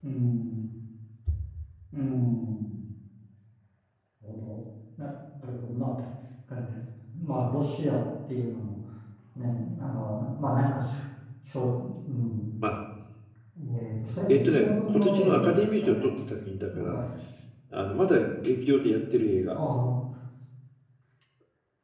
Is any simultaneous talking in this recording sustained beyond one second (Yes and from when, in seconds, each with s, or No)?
Yes, from 14.3 s